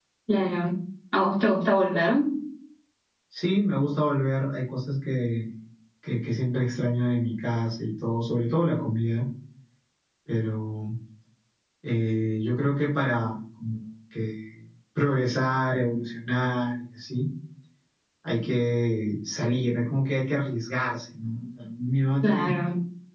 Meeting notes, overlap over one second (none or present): none